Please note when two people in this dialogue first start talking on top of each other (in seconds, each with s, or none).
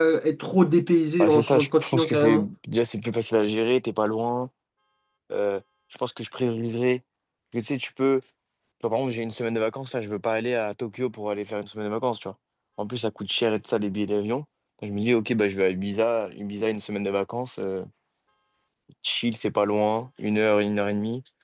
1.2 s